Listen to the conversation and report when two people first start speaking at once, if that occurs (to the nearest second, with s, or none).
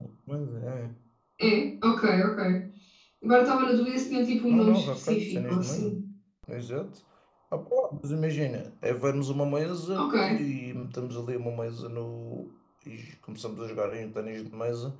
5 s